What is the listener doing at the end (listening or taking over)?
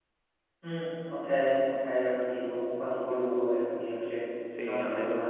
taking over